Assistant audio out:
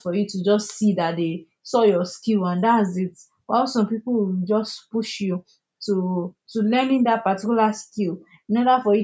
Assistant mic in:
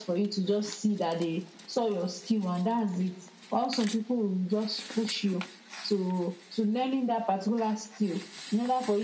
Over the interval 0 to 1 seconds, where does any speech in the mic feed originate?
echo only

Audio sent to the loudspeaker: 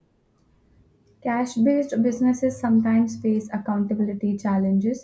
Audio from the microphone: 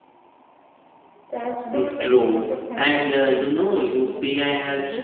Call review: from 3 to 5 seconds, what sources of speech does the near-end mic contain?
both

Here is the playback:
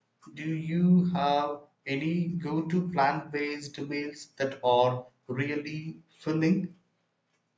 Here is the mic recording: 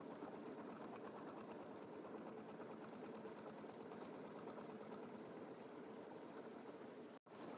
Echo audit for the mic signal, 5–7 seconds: neither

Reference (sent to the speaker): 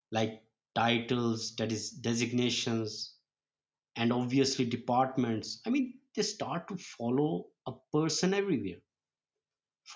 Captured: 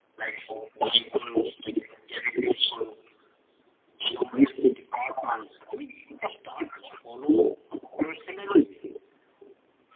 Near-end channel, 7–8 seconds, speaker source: echo only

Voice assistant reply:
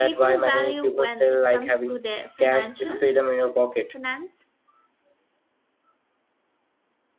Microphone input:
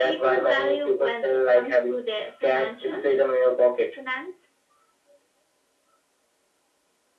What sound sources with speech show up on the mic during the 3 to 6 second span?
echo only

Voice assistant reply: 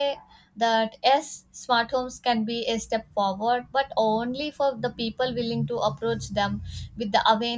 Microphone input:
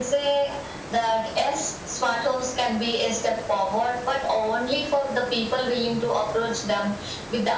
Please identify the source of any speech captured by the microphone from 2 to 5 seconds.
echo only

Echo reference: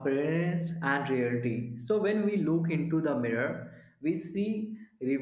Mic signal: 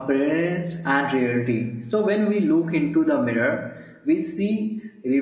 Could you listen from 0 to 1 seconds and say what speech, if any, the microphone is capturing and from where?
echo only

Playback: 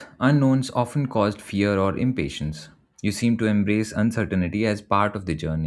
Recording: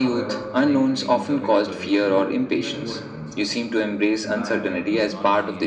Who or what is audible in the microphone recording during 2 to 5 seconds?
both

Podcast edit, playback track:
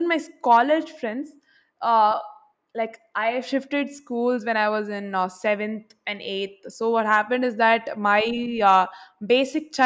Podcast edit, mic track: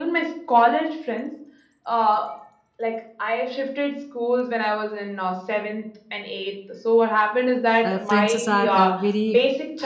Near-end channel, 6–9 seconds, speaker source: both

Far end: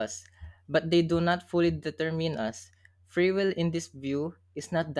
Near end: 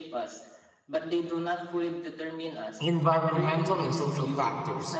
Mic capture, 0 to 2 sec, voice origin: echo only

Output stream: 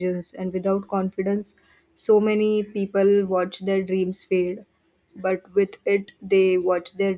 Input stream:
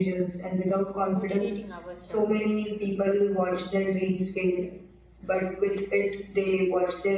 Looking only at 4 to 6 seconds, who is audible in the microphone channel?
echo only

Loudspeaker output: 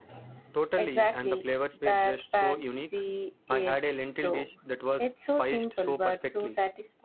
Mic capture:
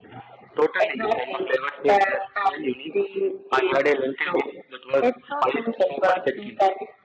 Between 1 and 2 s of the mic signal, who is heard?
echo only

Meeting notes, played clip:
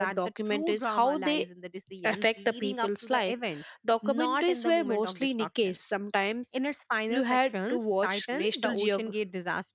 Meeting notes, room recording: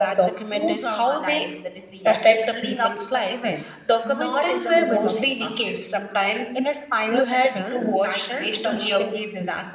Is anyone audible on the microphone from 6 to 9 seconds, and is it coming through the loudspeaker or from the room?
echo only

